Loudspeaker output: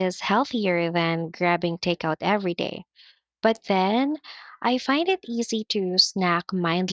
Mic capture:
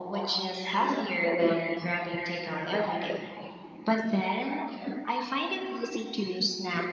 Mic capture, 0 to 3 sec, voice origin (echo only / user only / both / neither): echo only